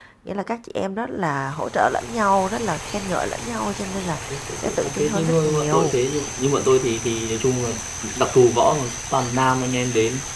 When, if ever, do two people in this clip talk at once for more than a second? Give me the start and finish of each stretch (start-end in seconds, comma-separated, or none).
4.6-6.0